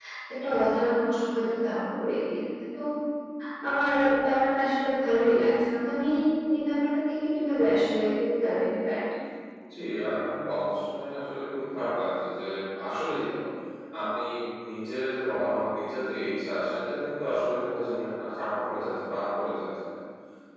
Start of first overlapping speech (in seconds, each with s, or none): none